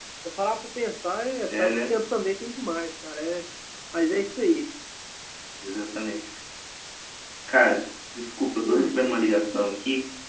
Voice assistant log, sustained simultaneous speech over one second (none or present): none